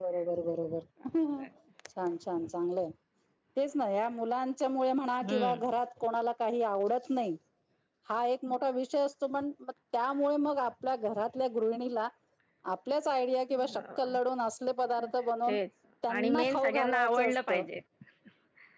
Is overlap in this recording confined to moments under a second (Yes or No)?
No